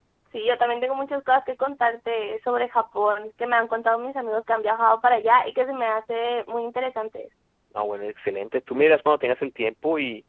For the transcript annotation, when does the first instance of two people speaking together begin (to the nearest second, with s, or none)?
none